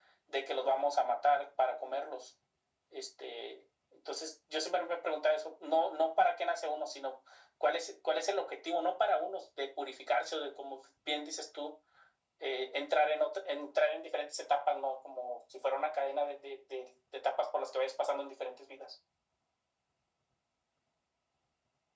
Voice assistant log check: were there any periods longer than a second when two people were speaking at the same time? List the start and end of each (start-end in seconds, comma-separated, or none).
none